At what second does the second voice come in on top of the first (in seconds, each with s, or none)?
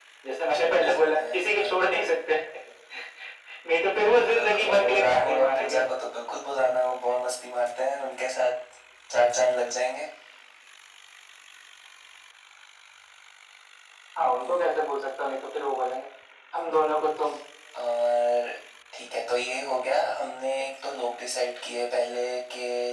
0.5 s